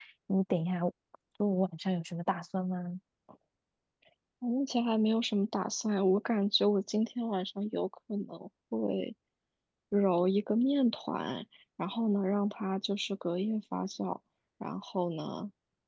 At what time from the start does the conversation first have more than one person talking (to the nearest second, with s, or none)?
none